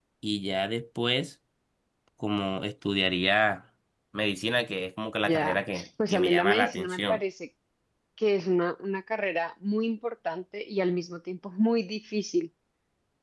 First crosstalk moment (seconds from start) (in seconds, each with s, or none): 5.2 s